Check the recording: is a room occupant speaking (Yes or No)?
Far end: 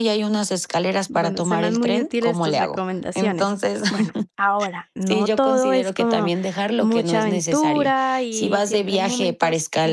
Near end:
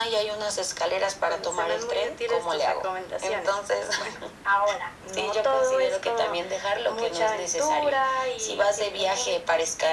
No